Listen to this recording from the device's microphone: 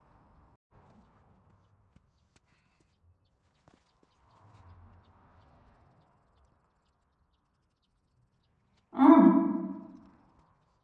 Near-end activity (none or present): present